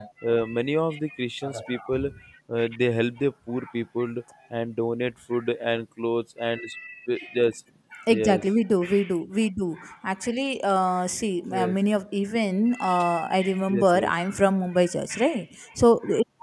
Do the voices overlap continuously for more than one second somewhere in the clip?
No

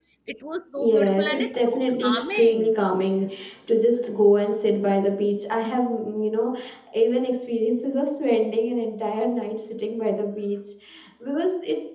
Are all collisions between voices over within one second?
No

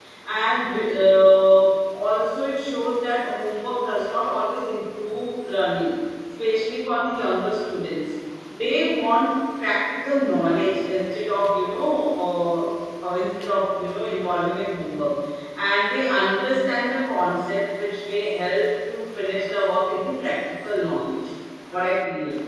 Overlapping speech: No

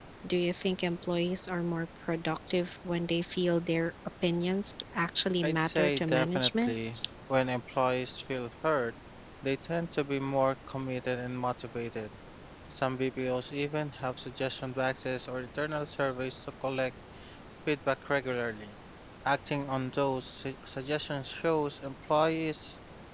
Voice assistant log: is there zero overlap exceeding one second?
No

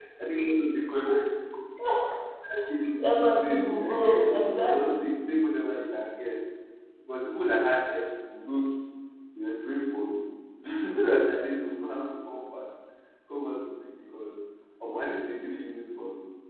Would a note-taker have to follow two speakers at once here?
Yes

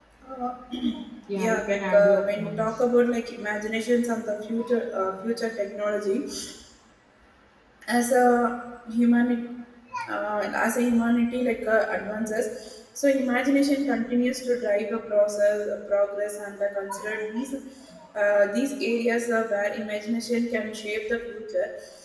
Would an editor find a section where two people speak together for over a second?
Yes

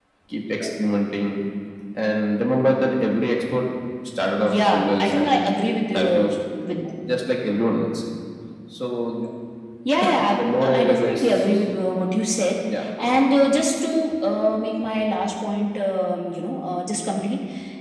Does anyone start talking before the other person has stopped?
Yes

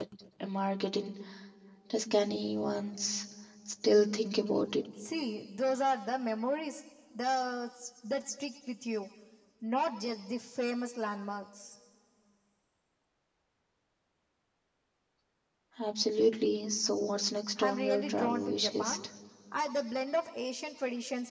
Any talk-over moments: Yes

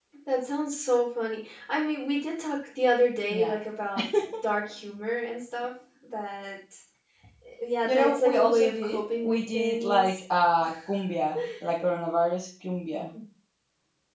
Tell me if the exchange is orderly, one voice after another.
No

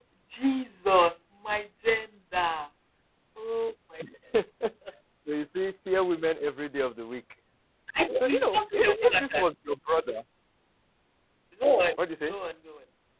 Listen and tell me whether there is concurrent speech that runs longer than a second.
Yes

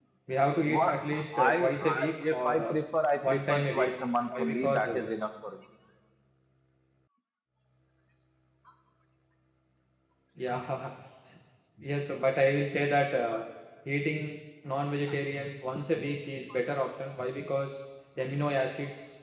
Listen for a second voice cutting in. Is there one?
Yes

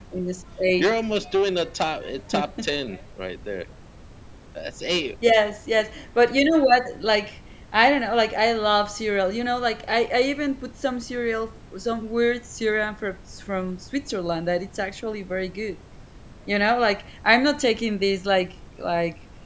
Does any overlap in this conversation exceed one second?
No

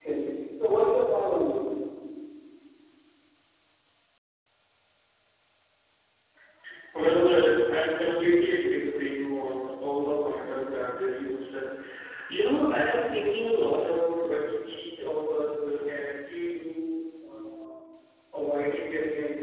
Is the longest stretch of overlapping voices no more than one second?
Yes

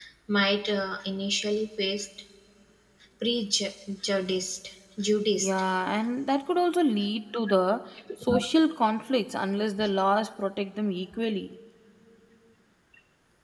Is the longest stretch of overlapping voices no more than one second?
Yes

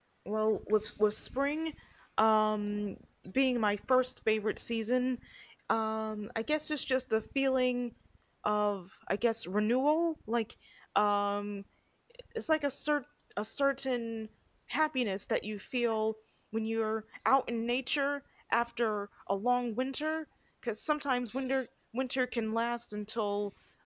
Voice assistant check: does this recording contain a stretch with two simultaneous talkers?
No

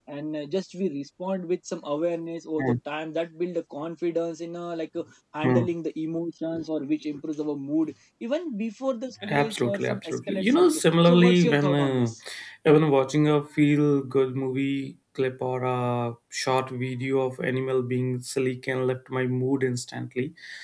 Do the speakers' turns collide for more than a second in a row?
Yes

